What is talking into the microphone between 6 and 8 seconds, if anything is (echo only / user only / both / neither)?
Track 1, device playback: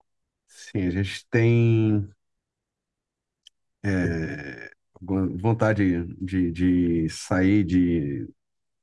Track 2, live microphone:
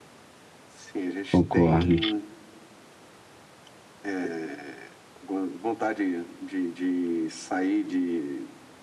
echo only